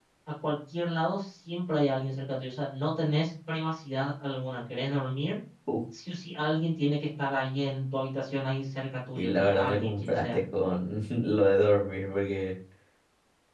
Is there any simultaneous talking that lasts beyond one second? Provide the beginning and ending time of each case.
9.2-10.4

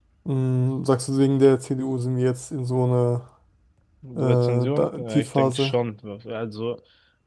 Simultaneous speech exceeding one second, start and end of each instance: 4.2-5.7

